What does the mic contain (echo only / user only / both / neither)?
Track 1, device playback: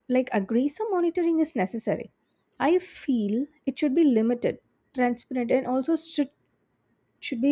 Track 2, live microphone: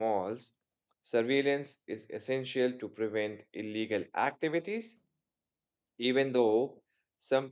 user only